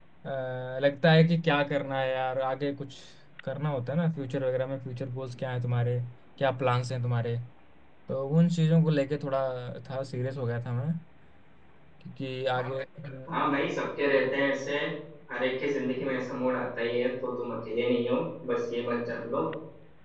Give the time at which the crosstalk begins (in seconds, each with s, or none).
none